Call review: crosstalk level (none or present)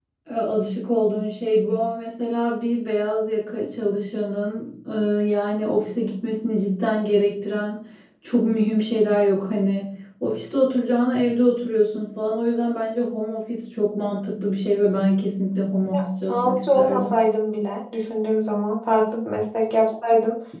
present